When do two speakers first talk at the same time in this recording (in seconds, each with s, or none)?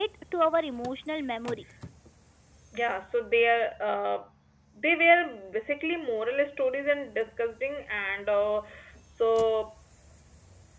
none